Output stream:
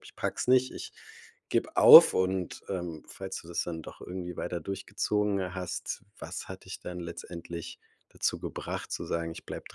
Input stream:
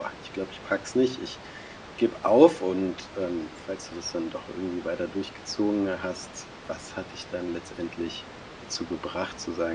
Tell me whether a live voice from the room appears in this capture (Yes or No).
No